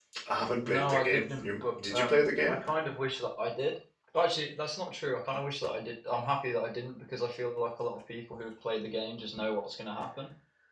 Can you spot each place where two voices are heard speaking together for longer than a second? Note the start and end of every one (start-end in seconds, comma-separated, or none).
0.7-2.6